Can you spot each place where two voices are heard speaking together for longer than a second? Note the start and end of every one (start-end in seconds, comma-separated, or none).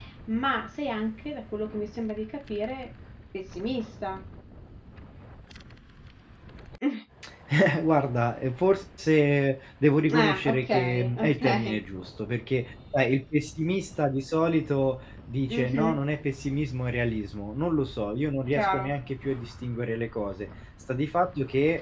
10.1-11.8